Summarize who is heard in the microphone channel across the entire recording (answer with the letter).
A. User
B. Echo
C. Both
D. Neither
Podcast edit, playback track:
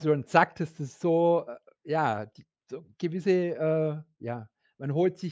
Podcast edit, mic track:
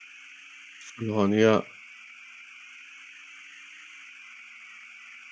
A